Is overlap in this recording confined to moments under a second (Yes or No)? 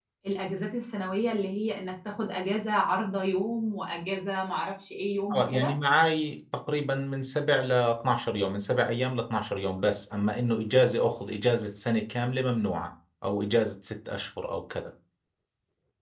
Yes